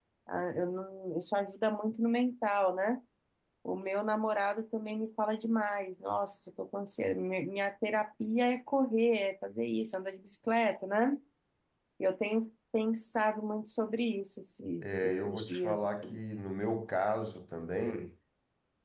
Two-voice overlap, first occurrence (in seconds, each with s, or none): 14.8 s